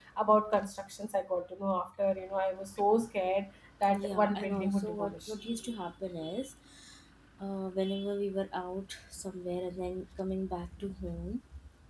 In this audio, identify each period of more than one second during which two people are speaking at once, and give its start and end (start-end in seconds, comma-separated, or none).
4.0-5.3